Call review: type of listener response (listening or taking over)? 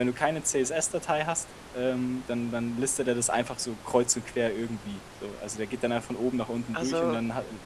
listening